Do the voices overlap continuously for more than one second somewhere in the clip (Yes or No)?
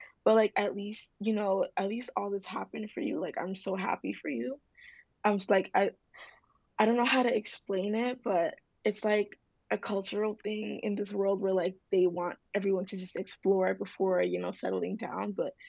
No